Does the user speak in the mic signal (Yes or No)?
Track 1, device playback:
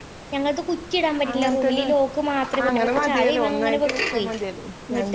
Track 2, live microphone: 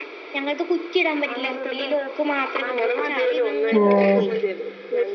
Yes